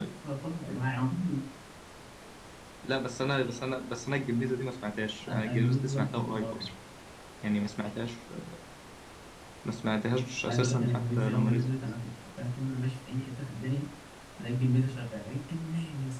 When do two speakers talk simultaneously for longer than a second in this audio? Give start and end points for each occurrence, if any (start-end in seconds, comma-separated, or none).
5.3-6.7, 10.4-11.7